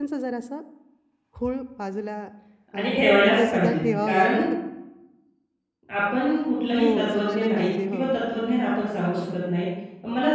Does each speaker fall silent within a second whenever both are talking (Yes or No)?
No